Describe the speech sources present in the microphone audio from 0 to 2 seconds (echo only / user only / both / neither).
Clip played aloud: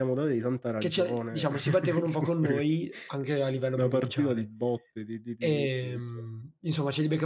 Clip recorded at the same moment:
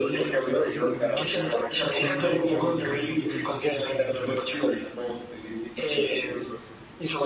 both